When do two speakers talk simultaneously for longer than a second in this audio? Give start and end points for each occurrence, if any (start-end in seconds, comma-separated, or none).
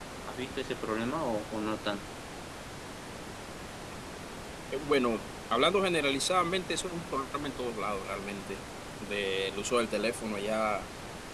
none